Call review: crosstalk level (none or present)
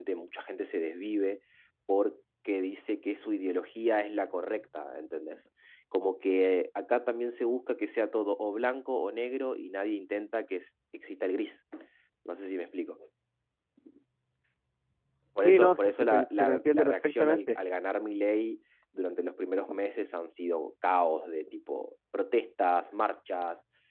present